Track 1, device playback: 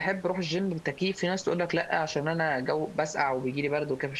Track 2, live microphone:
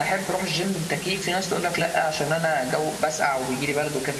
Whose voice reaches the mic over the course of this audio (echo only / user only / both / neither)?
echo only